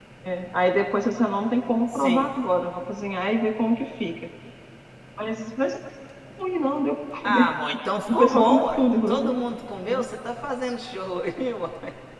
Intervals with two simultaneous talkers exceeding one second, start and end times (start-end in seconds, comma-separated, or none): 8.1-9.3